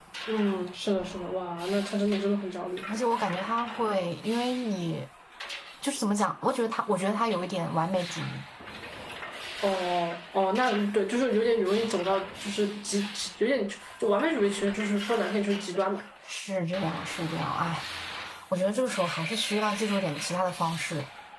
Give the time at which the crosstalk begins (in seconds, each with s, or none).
none